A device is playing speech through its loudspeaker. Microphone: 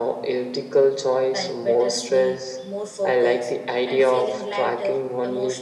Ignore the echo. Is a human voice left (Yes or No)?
Yes